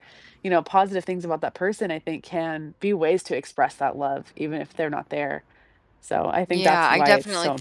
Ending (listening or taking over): taking over